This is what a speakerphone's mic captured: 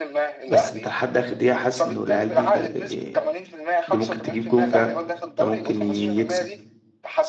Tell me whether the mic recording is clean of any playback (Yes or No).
No